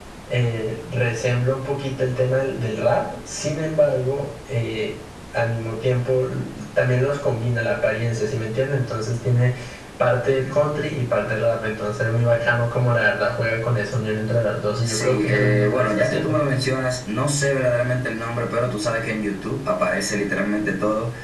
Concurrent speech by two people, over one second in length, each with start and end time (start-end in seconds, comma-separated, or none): 14.9-16.4